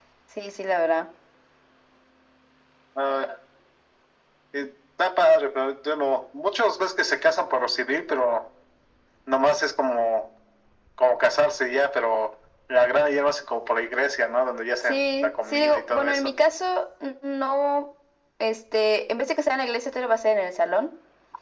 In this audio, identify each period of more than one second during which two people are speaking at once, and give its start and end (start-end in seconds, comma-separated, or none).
14.8-16.3